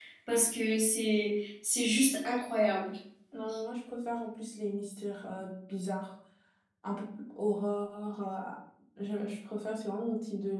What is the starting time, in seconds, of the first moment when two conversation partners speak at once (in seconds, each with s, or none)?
none